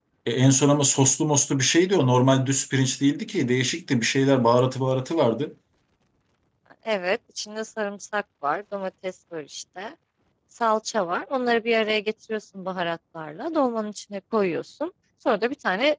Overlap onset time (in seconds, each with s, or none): none